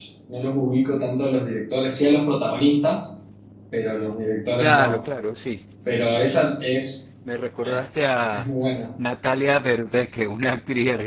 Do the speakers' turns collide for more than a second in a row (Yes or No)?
No